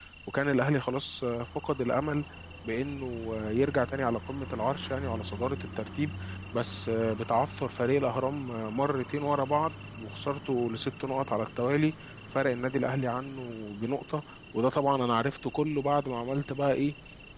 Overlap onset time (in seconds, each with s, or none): none